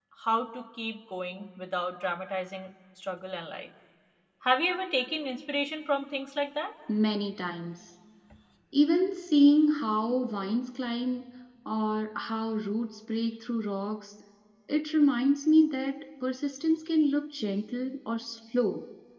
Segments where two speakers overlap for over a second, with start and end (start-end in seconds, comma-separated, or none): none